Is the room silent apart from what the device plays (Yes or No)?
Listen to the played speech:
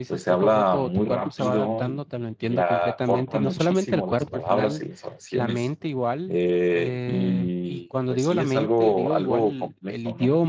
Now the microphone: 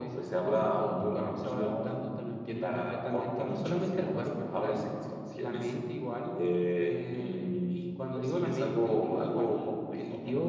Yes